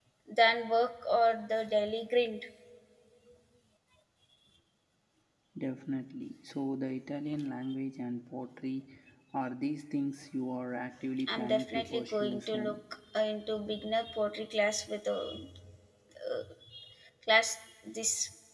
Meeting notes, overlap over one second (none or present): present